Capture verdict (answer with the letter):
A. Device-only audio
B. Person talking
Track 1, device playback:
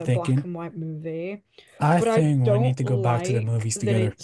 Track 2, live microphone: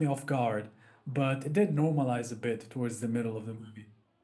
B